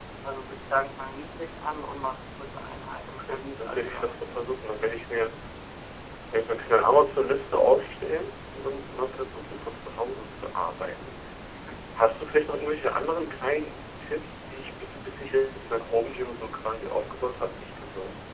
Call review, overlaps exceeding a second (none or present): present